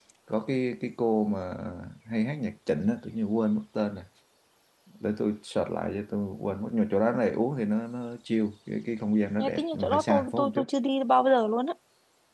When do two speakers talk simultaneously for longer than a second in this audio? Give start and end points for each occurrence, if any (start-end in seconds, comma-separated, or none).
9.4-10.6